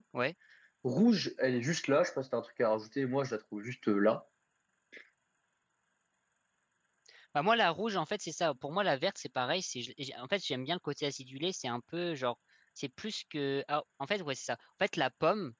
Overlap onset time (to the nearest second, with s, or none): none